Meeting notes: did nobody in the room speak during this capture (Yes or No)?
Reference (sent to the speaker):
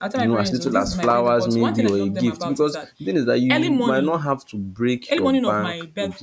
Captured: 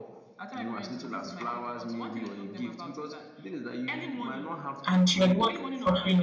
No